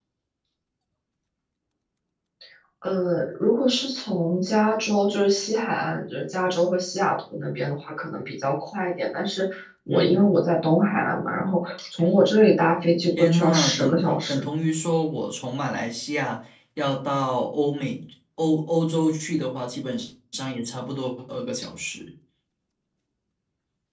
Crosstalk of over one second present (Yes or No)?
Yes